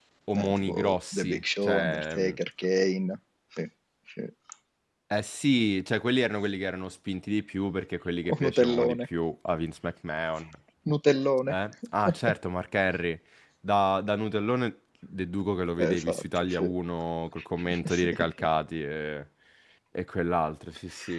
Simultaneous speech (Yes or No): Yes